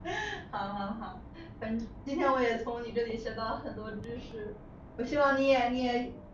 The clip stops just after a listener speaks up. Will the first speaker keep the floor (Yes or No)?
Yes